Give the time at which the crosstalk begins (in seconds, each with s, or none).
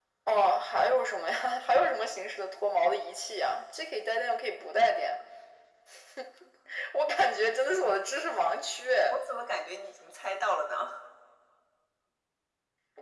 none